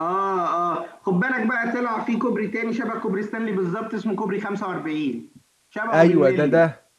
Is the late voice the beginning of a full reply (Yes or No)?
Yes